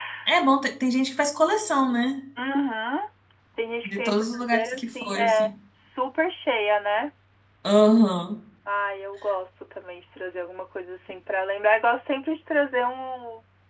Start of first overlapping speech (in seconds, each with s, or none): 3.8 s